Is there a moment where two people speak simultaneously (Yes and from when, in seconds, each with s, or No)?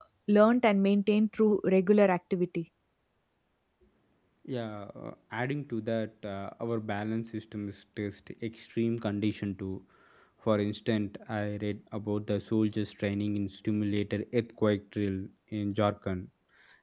No